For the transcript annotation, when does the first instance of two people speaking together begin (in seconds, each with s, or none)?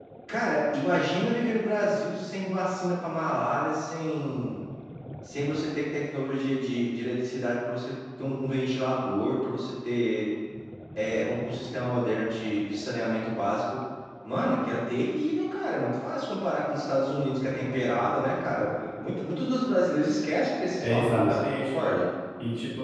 20.8 s